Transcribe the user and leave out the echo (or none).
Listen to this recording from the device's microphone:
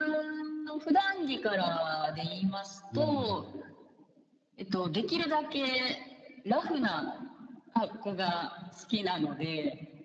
うーん。